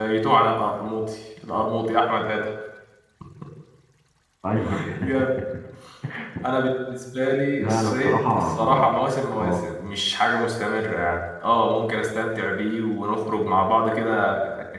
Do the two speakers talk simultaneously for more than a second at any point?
Yes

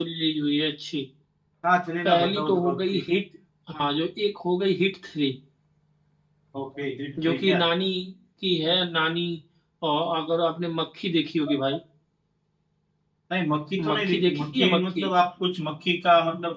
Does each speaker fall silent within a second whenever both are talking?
No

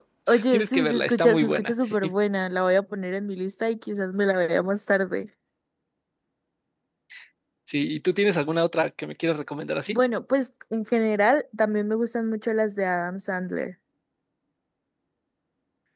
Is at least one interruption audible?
Yes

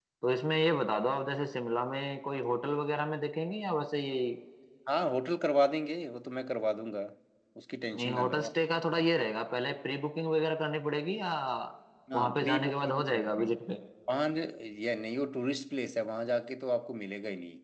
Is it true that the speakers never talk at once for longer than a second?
No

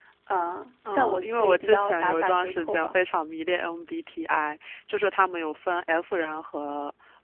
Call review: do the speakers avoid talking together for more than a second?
No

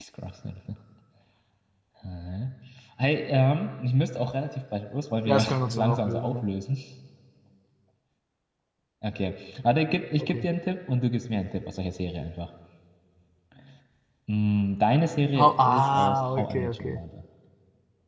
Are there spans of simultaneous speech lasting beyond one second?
Yes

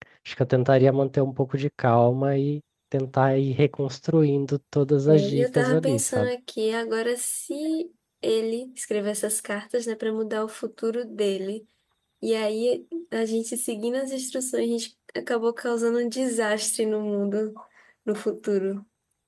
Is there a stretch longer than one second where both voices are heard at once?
Yes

